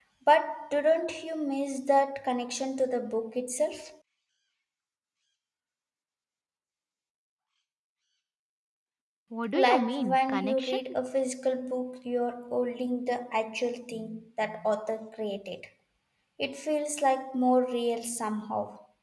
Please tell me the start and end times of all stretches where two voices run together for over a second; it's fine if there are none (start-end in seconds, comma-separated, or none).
9.5-10.8